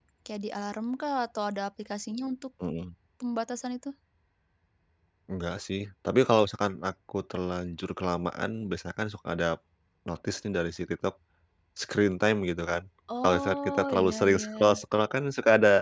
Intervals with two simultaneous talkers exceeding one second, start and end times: 13.2-14.8

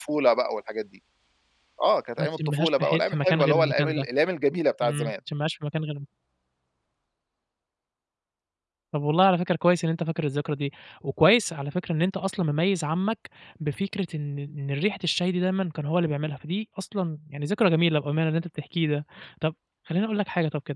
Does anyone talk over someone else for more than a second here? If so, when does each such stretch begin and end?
2.2-4.1

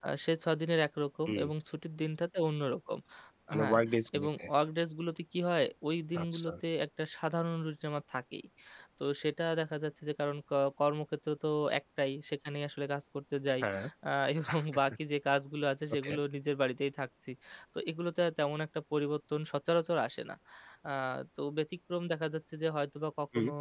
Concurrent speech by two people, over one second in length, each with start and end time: none

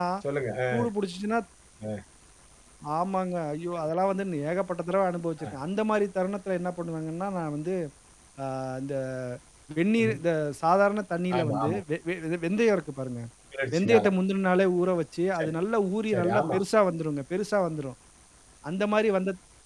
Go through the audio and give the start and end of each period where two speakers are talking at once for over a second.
none

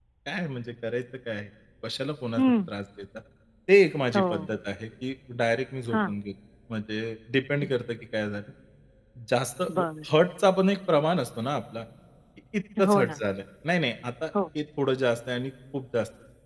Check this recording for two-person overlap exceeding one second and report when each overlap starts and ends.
none

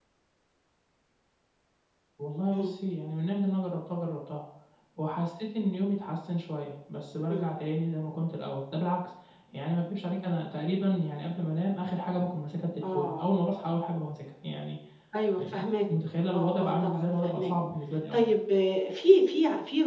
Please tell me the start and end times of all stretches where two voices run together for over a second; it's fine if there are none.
16.3-17.5

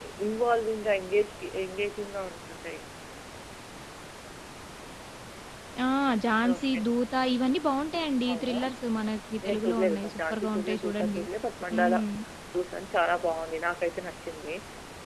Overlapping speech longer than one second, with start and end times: 9.5-11.2

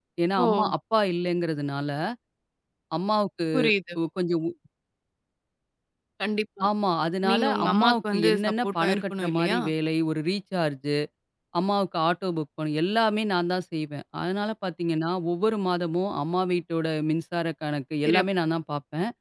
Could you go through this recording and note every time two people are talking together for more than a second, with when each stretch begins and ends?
7.3-9.6

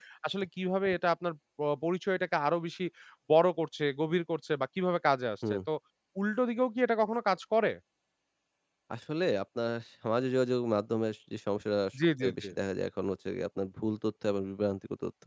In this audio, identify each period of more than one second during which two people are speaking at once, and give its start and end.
none

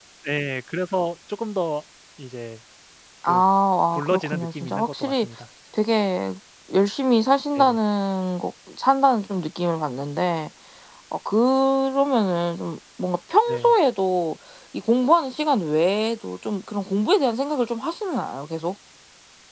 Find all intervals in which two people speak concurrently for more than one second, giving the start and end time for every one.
3.9-5.3

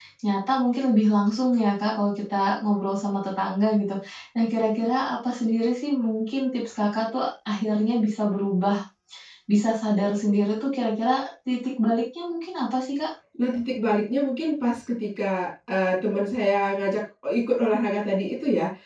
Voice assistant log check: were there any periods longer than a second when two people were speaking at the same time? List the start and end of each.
none

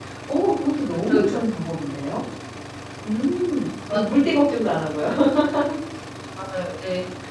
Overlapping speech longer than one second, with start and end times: none

